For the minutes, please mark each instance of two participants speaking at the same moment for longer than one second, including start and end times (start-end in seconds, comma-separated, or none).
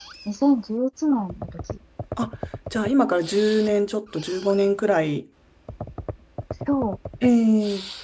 none